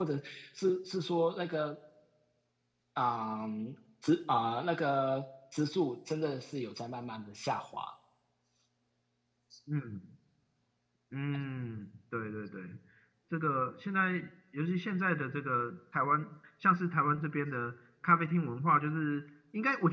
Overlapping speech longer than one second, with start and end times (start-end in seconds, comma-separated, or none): none